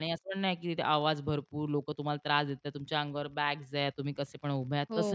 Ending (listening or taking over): listening